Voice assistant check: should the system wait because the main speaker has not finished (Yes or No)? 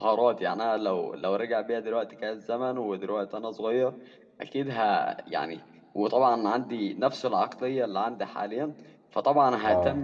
Yes